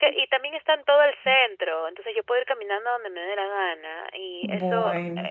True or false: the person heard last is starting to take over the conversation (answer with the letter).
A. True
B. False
B